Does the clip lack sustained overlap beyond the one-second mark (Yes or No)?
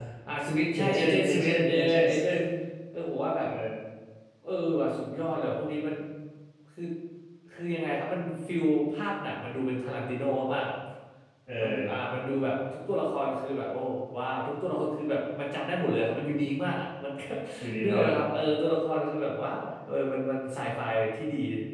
No